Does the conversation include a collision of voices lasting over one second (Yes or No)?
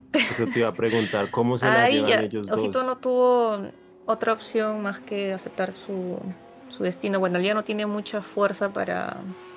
Yes